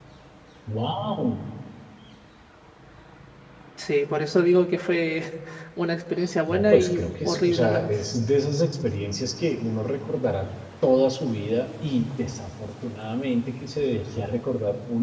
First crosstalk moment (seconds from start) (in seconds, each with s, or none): 6.5 s